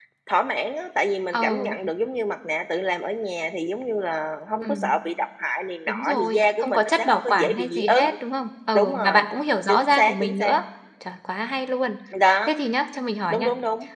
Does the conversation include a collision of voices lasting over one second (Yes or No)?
Yes